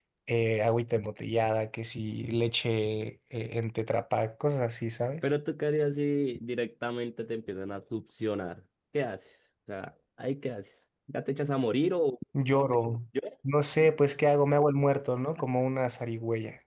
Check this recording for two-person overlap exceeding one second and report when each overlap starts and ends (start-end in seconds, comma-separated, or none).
none